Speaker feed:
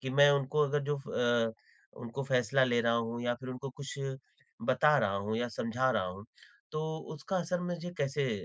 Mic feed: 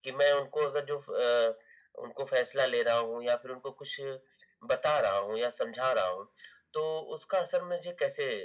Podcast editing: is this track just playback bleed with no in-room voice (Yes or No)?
Yes